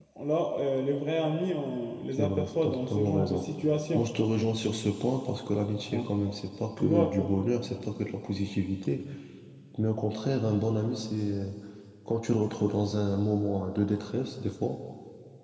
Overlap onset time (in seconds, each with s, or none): 2.2 s